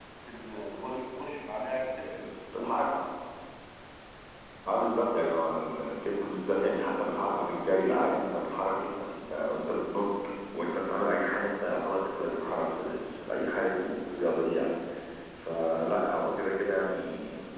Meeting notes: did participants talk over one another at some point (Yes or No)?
No